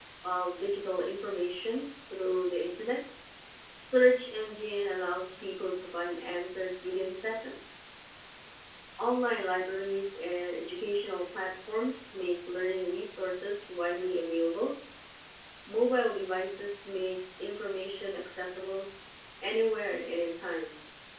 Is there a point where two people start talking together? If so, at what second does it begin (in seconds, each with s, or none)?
none